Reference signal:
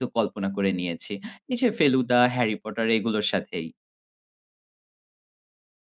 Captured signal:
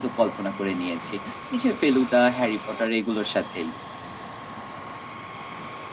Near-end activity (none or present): none